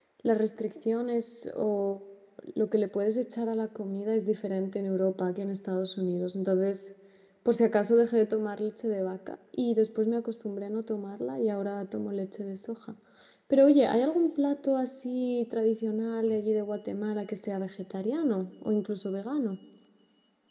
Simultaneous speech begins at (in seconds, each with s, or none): none